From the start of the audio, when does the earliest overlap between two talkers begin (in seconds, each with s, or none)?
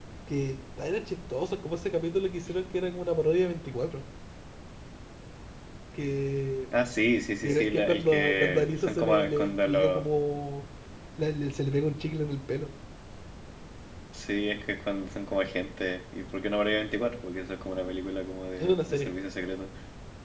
7.4 s